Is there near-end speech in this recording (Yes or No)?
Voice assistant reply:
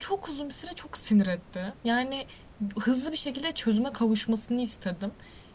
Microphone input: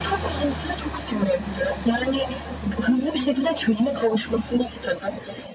No